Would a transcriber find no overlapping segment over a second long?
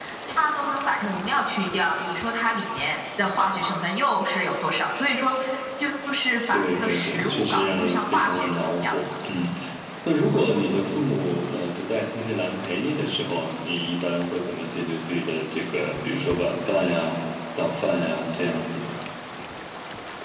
No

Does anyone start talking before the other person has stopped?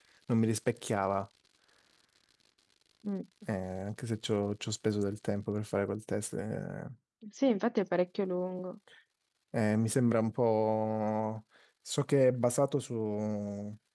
No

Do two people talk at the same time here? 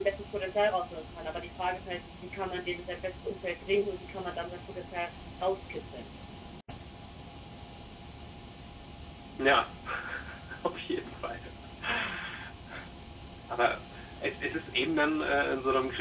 No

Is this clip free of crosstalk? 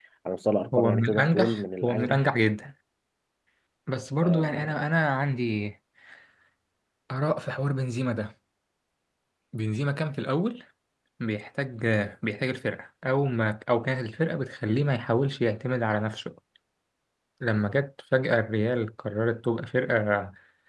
No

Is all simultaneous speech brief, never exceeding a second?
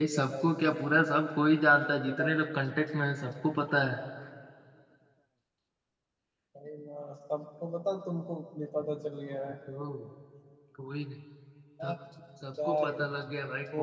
Yes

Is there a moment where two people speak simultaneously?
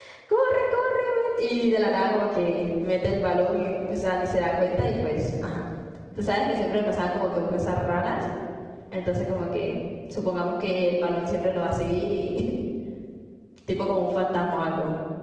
No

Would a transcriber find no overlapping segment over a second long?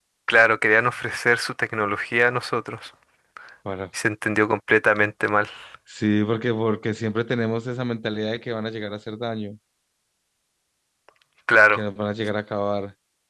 Yes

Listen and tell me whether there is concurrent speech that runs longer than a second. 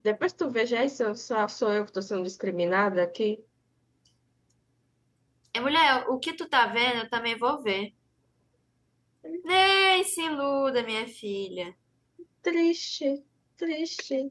No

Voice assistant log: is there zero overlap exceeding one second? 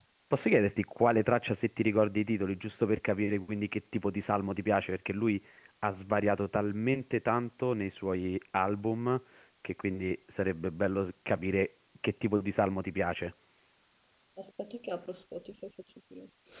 Yes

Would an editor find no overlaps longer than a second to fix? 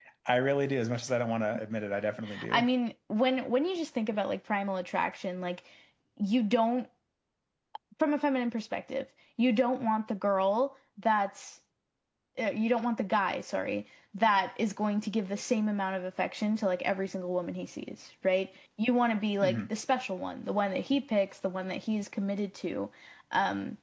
Yes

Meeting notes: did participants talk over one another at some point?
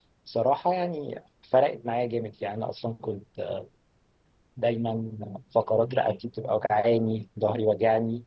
No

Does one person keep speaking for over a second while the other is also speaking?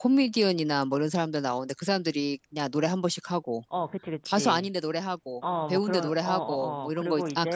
Yes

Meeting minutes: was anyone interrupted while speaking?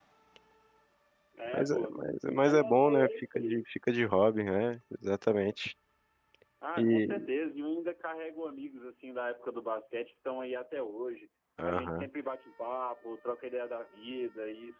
Yes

